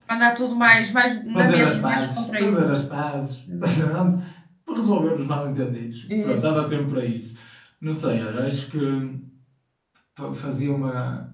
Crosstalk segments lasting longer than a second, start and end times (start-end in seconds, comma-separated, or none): 1.3-2.8